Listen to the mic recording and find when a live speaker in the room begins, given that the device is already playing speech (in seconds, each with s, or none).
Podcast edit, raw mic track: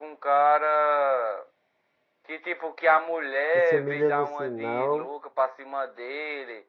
3.5 s